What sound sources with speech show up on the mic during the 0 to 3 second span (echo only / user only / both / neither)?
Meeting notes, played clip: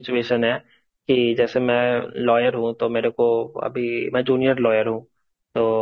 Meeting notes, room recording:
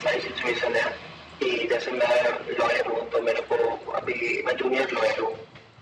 echo only